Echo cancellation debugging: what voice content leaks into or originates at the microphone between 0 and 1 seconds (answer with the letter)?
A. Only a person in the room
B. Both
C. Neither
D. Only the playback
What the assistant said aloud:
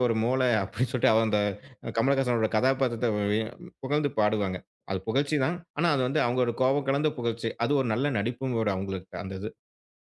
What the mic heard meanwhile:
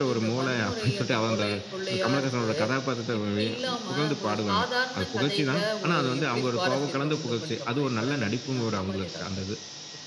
B